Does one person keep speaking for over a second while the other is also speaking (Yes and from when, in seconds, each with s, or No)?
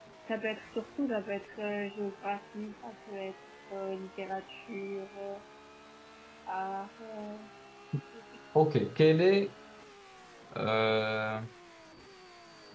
No